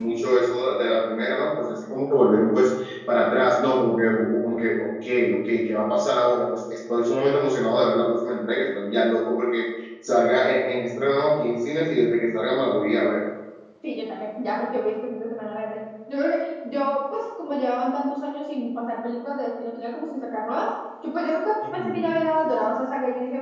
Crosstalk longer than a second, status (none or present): none